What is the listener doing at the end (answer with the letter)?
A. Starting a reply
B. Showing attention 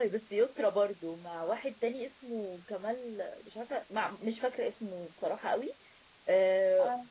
B